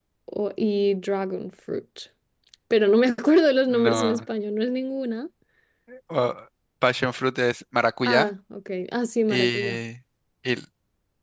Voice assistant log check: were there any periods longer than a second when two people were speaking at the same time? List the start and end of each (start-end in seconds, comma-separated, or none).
none